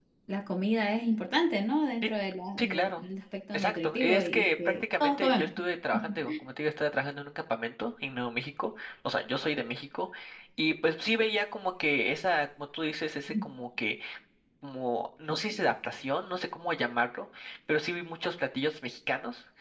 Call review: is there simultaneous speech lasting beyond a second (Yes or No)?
Yes